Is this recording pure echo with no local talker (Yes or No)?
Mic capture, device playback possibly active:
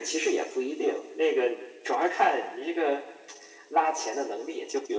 Yes